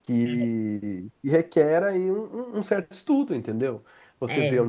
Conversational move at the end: listening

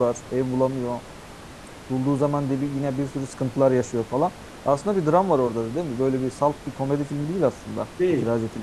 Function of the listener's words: taking over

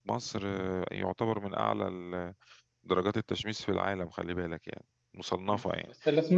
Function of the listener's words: taking over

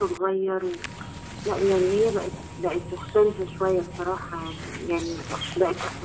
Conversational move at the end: listening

